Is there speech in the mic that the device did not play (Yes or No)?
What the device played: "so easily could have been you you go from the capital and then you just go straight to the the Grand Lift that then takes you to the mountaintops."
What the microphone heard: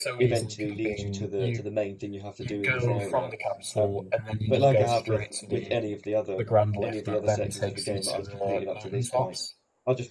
Yes